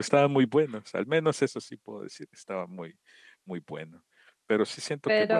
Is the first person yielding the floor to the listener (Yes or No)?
No